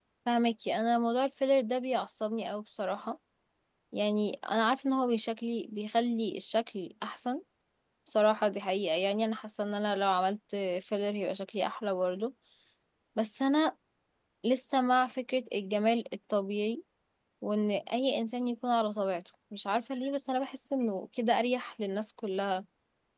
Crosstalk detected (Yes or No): No